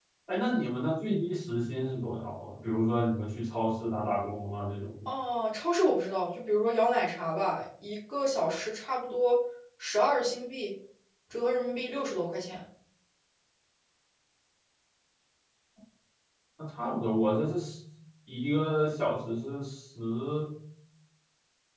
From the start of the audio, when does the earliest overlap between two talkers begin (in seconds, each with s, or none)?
none